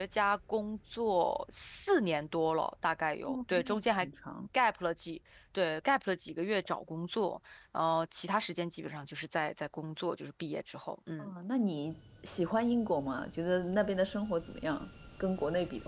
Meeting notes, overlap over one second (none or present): none